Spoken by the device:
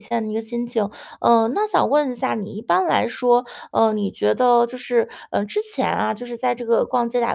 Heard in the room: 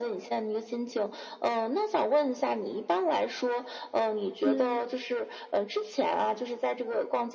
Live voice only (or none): 嗯。